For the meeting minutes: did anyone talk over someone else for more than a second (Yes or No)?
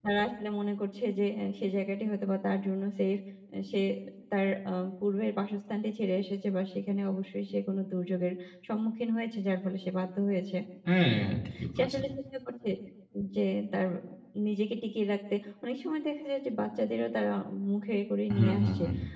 No